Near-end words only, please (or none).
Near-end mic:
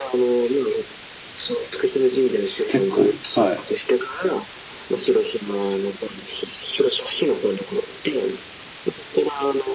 結構、はい。